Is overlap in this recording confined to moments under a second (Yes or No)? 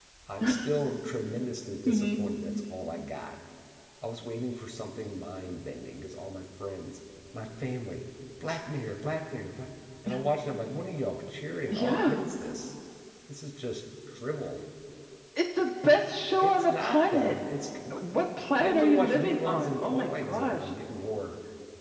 No